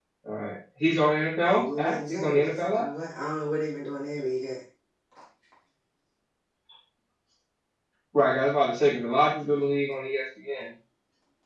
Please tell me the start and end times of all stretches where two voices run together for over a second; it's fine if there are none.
1.4-2.9

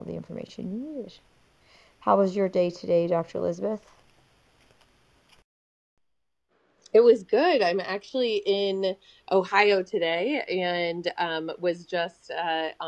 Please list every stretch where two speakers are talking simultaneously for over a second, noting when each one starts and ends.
none

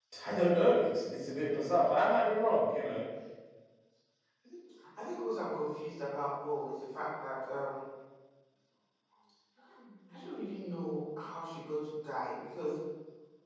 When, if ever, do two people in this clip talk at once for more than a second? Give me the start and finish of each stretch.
none

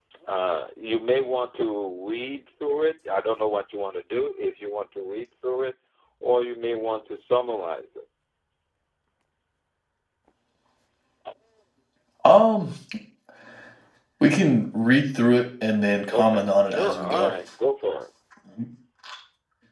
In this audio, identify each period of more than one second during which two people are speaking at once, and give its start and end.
16.1-17.3

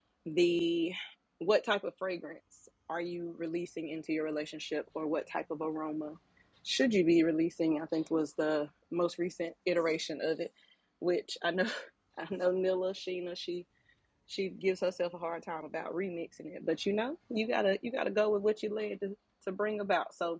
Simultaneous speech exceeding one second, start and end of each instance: none

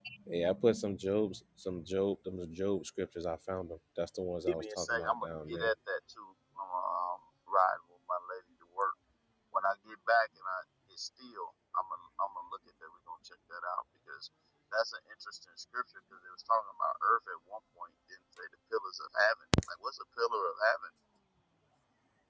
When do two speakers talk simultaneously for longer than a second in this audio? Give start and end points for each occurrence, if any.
4.5-5.7

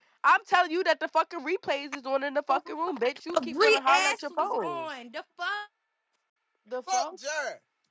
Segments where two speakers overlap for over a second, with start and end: 3.3-4.8

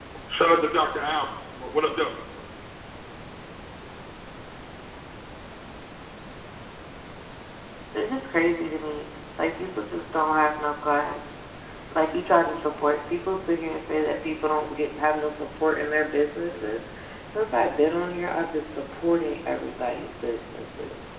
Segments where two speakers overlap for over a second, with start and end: none

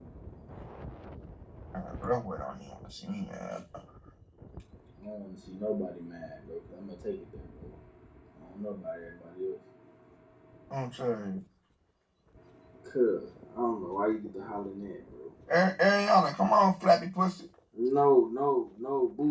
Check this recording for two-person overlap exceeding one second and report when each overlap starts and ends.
none

